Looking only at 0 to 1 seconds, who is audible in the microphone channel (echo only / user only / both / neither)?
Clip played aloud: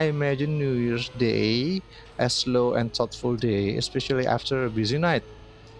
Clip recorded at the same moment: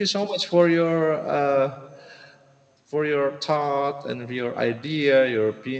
user only